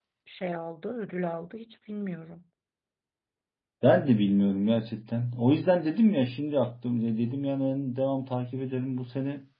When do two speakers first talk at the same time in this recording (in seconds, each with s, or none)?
none